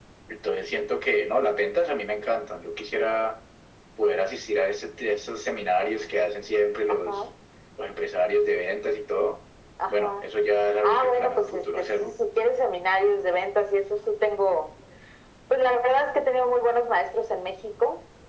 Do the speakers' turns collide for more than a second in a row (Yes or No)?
Yes